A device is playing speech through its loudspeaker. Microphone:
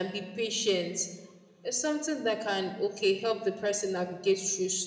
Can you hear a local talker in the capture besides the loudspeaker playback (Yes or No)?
No